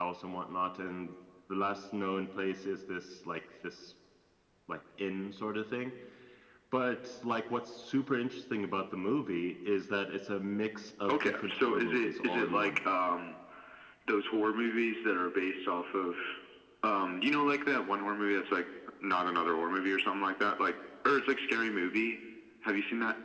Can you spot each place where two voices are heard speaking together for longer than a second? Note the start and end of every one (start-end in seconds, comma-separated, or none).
11.1-12.8